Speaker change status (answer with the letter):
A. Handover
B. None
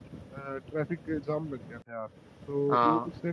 B